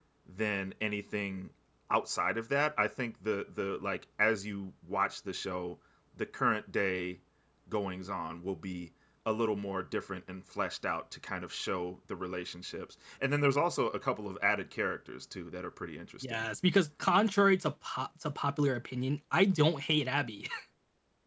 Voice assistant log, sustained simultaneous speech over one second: none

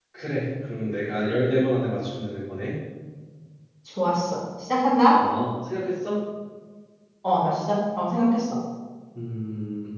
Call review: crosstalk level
none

